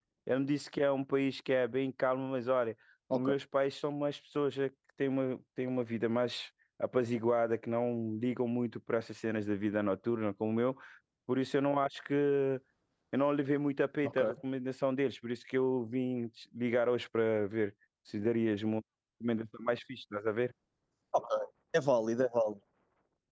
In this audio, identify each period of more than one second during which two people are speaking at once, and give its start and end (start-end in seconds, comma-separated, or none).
none